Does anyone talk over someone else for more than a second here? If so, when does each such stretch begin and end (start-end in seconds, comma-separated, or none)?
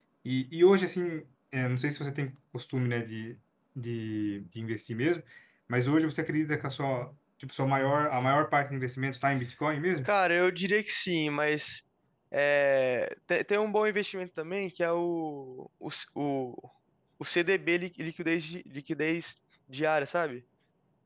none